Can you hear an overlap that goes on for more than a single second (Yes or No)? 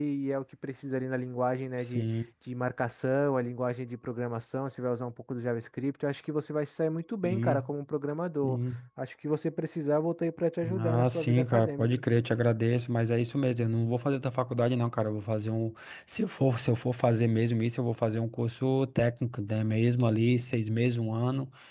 Yes